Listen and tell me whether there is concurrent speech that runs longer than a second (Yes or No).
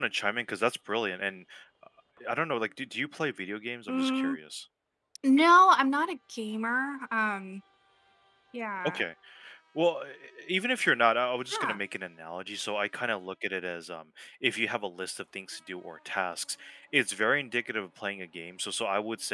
No